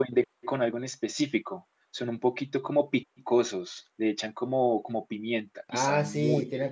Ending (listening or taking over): taking over